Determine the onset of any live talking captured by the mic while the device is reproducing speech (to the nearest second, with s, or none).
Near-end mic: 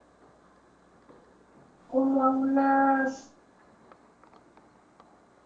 2 s